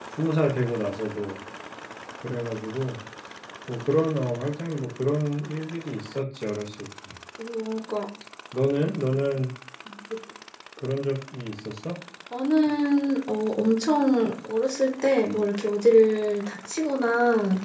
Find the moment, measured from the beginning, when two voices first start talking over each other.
none

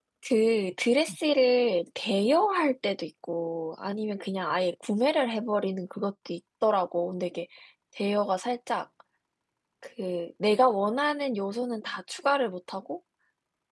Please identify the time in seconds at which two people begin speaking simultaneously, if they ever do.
none

